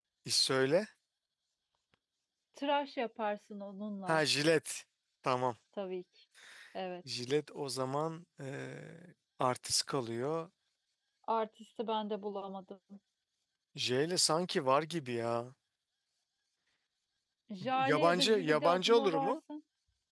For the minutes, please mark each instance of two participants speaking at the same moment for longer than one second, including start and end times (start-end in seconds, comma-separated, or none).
17.8-19.4